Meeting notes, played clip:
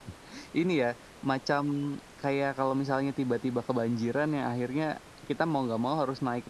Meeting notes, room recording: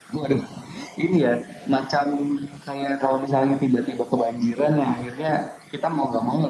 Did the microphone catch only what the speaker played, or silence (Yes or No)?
Yes